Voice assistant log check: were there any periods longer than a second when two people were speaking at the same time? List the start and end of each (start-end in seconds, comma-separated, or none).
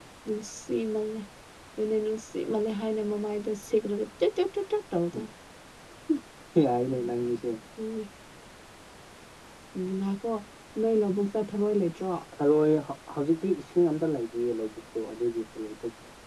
none